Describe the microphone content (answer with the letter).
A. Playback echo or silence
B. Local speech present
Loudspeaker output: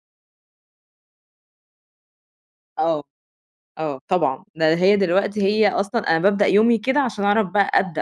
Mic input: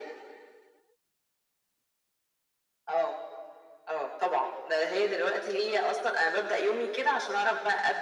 A